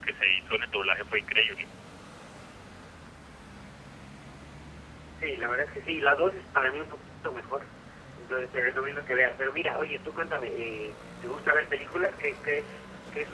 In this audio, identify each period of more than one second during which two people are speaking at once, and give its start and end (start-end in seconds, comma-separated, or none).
none